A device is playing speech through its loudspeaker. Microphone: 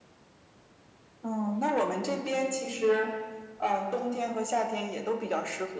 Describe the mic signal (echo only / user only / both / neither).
echo only